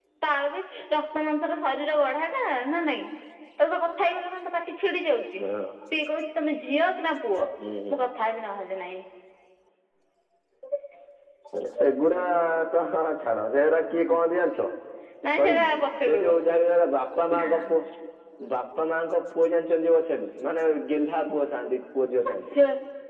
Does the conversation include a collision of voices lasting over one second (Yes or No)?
No